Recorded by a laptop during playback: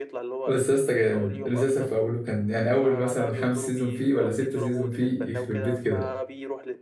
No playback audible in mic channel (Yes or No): No